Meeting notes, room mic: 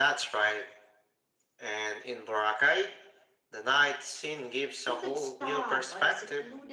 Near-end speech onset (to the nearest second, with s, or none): 5 s